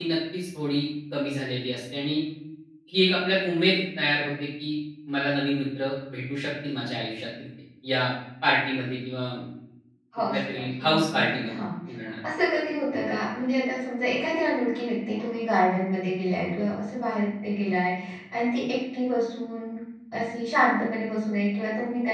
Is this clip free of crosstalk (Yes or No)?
No